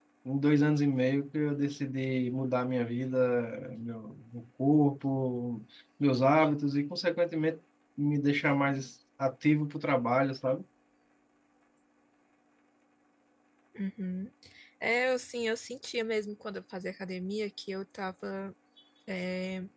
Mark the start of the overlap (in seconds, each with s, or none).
none